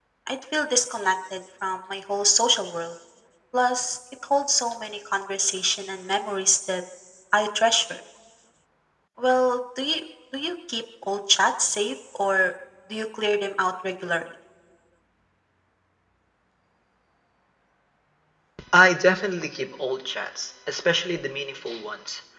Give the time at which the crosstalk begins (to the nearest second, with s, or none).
none